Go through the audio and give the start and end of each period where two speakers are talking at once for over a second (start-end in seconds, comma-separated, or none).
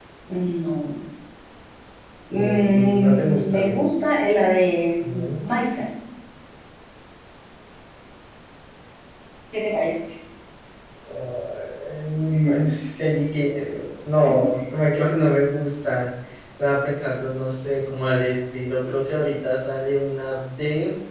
2.3-3.8